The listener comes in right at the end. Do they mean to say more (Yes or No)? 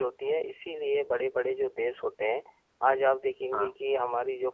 No